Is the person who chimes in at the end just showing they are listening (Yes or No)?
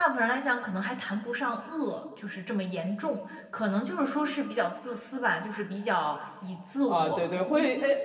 No